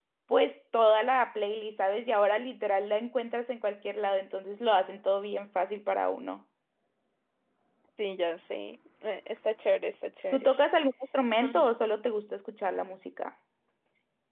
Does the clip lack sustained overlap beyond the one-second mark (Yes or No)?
Yes